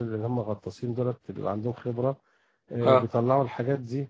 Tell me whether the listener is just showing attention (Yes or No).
Yes